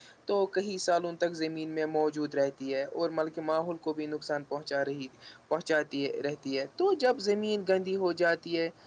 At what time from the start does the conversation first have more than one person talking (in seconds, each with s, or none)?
none